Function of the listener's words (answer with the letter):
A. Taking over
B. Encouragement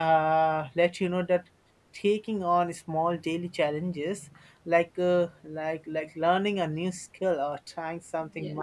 B